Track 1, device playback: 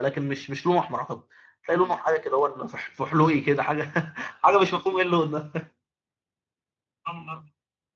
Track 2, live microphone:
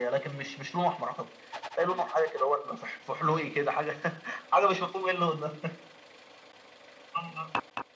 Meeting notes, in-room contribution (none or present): none